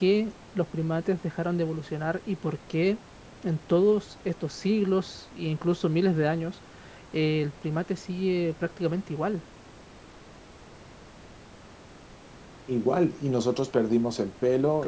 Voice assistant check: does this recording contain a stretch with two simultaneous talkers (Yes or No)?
No